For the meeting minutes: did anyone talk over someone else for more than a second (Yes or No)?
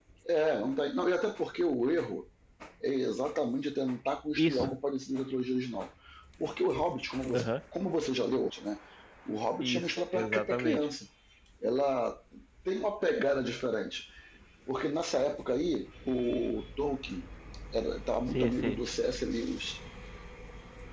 Yes